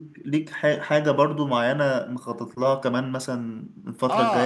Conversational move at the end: taking over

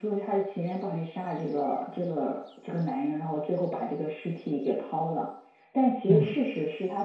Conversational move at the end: listening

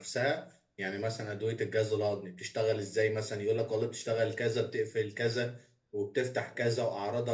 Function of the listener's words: listening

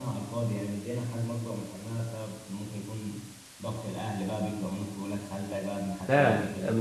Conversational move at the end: taking over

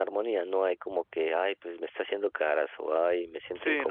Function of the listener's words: taking over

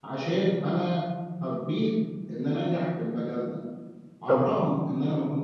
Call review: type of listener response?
listening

